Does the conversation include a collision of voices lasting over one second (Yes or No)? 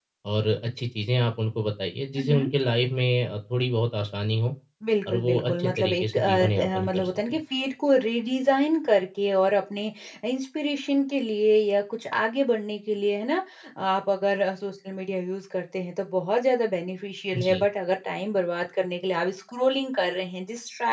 Yes